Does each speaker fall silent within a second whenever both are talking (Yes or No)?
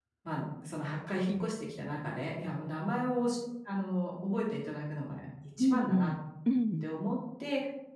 Yes